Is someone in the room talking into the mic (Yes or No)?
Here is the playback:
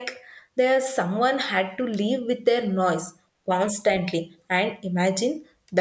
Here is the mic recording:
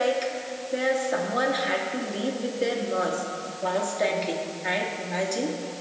No